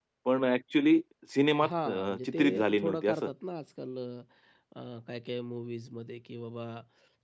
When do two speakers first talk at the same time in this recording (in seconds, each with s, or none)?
1.6 s